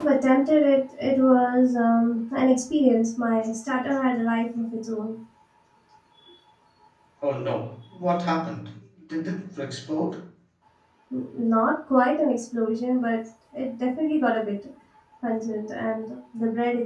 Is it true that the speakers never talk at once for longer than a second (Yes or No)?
Yes